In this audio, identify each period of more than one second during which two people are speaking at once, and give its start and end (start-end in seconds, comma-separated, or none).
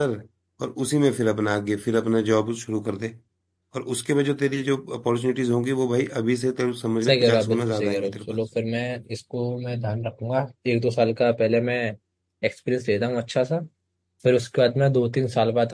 7.0-8.4